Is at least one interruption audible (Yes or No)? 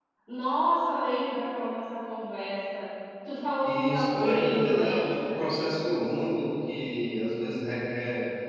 Yes